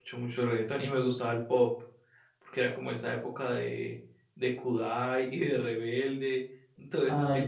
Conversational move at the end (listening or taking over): listening